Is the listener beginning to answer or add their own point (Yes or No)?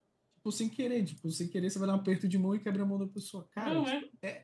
No